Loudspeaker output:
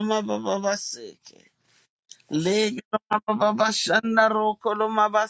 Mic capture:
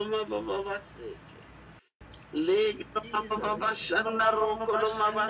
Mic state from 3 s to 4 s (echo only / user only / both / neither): both